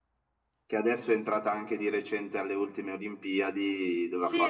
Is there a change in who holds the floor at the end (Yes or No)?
Yes